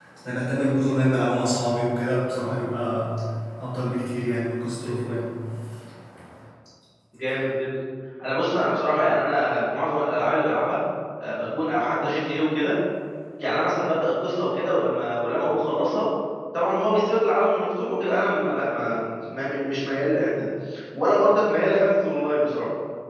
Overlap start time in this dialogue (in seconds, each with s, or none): none